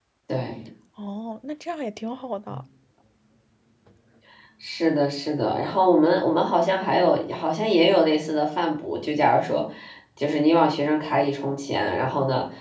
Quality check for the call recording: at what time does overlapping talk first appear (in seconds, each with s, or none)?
none